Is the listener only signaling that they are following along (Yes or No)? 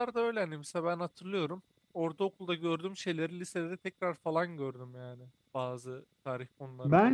No